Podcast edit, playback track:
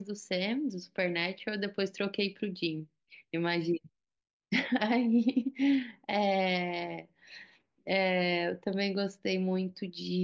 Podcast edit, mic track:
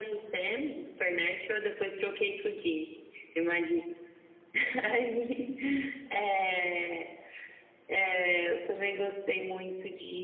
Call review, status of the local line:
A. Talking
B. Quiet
B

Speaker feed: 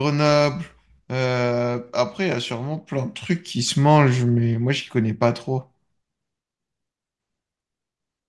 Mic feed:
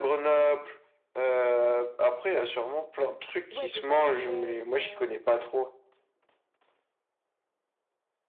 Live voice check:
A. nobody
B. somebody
B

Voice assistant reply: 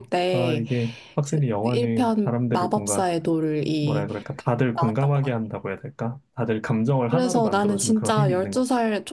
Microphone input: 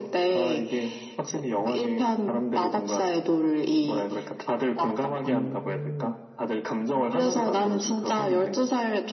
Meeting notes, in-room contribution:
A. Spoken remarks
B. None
A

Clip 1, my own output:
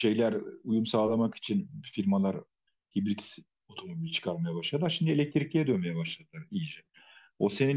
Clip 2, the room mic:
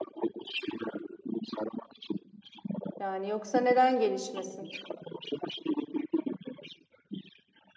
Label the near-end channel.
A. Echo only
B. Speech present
B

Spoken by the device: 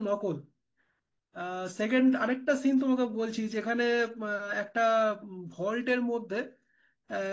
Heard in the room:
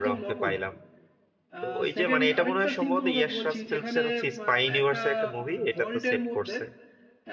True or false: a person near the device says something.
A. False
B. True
B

